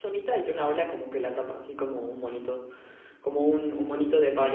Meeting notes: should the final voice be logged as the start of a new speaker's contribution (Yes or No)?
No